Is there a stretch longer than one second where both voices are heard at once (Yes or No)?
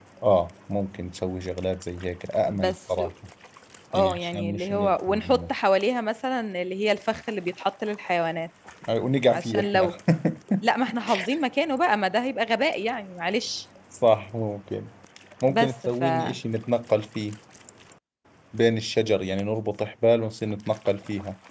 Yes